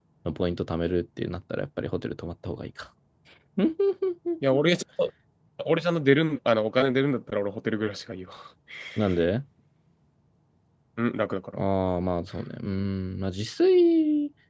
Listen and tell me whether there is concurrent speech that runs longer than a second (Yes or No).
No